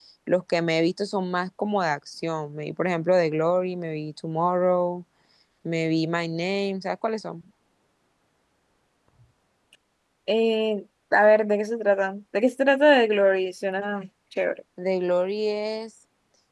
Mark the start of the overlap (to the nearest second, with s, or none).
none